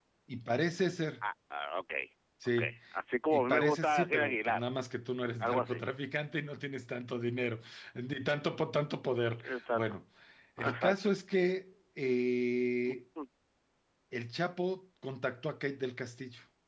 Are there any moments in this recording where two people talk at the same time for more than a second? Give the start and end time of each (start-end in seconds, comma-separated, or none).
3.3-4.6